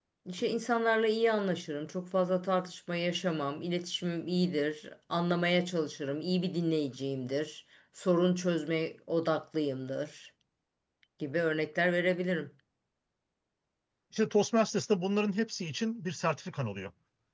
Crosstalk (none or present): none